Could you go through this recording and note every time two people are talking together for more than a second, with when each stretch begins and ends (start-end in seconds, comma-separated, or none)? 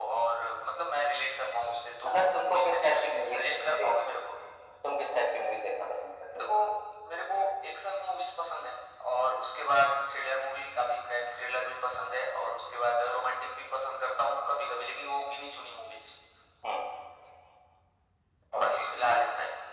2.5-3.9